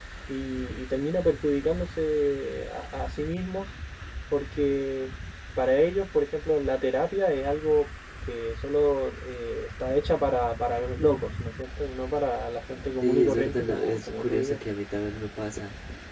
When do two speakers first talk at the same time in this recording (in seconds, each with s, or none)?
13.0 s